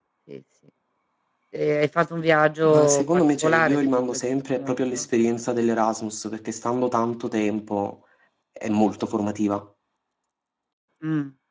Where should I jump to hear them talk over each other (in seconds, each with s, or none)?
2.6 s